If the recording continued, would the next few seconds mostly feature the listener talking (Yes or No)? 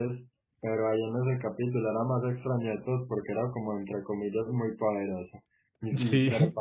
No